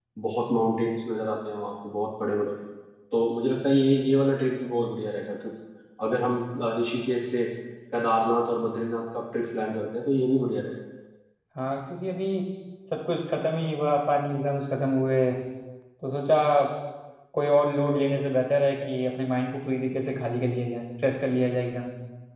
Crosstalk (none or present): none